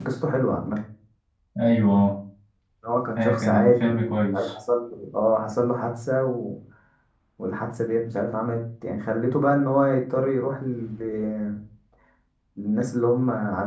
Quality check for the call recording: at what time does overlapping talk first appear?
3.2 s

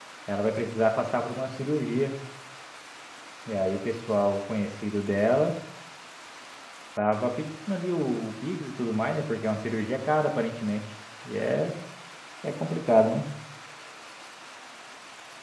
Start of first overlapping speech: none

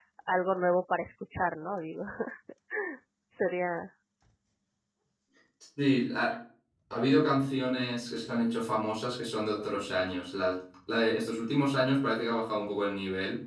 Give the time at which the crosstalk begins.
none

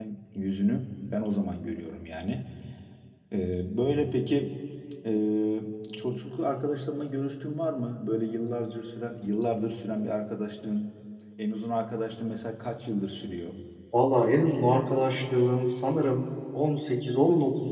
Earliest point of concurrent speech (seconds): none

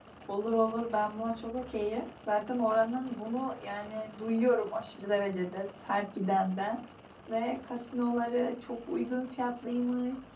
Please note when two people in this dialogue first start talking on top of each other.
none

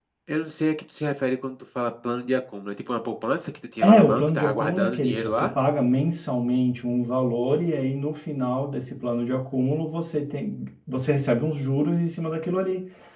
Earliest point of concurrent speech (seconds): 3.8 s

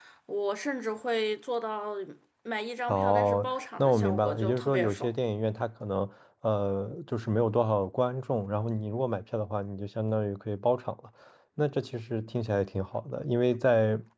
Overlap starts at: 2.9 s

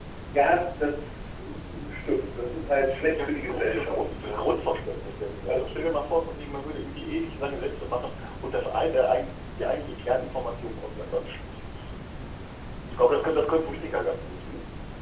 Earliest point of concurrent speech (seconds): 3.1 s

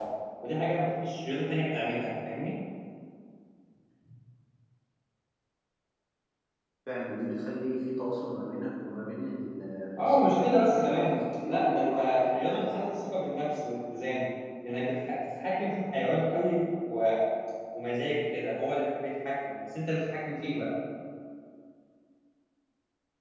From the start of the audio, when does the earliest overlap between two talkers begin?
10.0 s

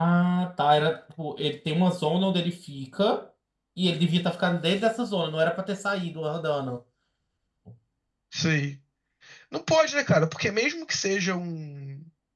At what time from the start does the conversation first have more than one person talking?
none

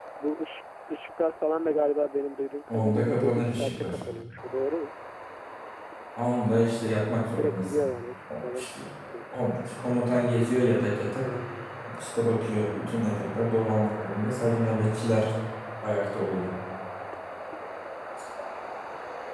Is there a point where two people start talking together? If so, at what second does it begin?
2.7 s

